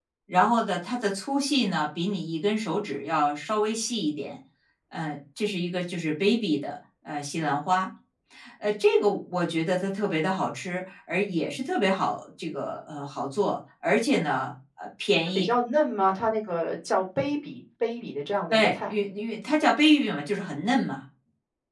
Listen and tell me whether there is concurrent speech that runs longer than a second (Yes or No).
No